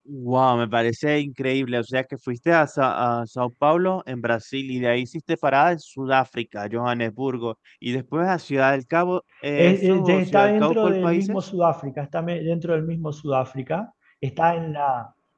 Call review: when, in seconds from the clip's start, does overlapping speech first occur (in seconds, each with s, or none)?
9.6 s